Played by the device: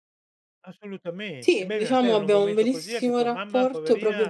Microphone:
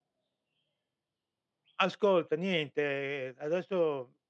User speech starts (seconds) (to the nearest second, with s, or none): 2 s